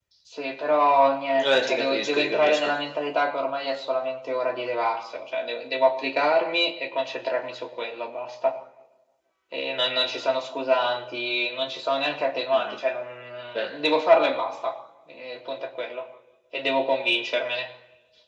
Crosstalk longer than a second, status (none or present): present